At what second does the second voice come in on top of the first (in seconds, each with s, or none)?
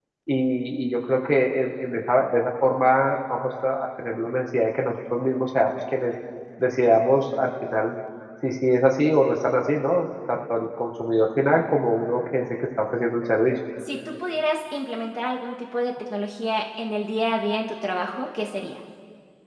none